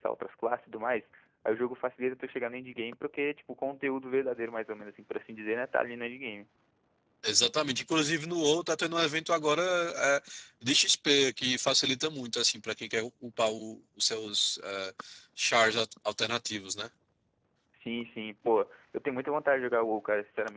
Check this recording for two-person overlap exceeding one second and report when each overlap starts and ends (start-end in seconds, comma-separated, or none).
none